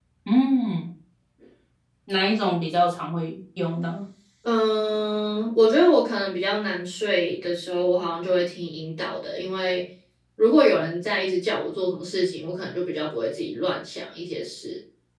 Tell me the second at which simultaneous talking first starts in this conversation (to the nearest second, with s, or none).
none